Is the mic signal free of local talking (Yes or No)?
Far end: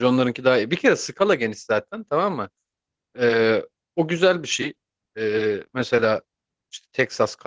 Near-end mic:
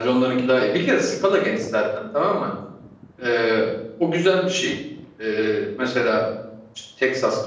Yes